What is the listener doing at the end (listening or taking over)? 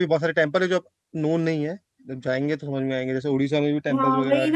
taking over